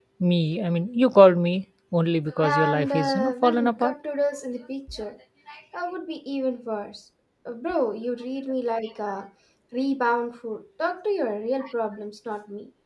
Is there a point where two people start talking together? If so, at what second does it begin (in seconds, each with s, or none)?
2.4 s